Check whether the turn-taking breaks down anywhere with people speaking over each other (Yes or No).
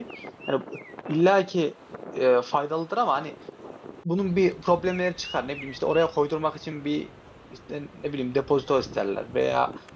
No